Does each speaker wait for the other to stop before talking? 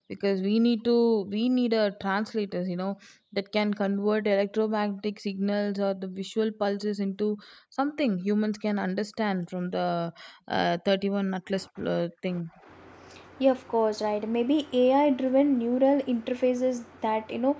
Yes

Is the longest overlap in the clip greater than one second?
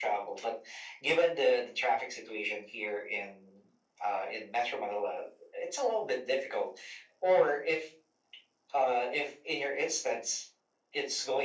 No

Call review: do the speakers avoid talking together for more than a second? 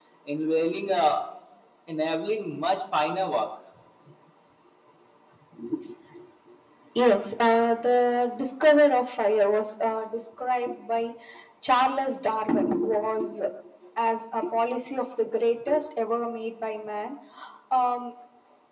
Yes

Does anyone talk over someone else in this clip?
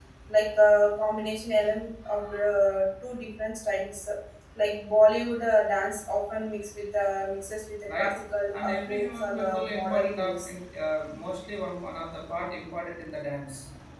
Yes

